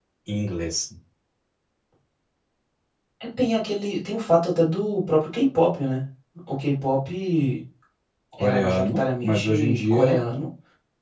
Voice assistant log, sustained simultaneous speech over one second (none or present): present